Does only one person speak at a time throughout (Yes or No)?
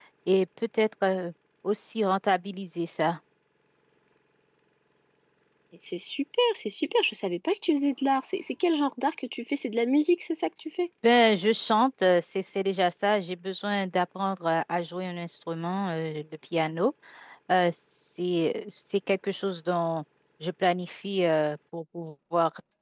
Yes